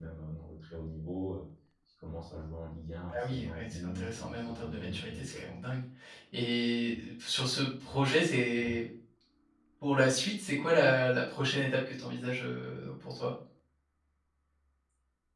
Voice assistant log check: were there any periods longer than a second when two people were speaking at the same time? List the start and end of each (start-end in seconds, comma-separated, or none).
3.1-5.5